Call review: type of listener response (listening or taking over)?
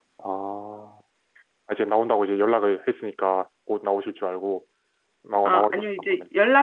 taking over